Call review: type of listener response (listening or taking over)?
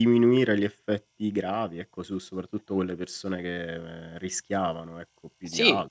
taking over